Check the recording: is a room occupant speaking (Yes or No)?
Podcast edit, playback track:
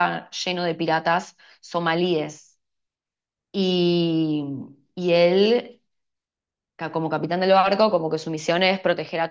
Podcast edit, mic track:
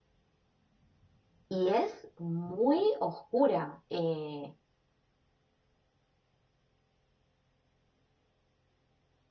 Yes